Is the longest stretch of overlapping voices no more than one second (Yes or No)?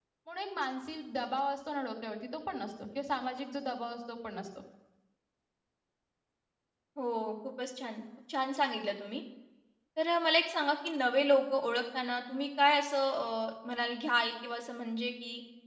Yes